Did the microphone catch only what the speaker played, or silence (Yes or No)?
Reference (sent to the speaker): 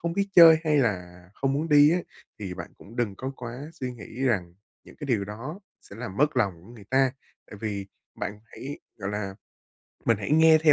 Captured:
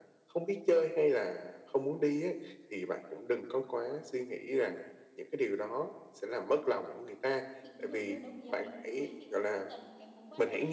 No